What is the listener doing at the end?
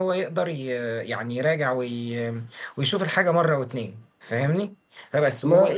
listening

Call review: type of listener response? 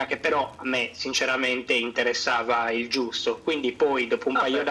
taking over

